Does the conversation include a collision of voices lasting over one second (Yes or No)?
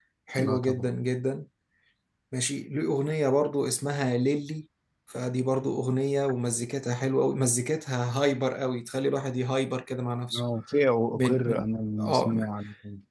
Yes